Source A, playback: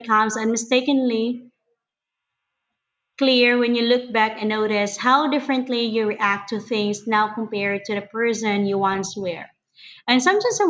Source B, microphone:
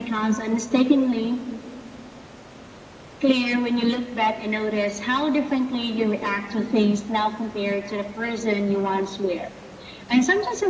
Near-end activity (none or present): none